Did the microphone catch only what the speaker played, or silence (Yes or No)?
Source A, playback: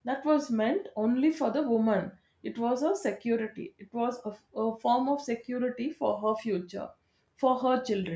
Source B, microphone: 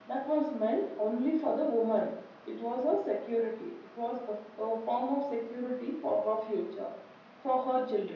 Yes